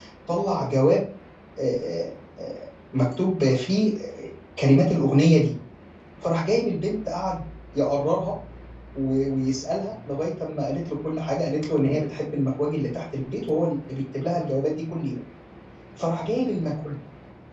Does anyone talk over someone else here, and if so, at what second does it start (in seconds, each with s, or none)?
none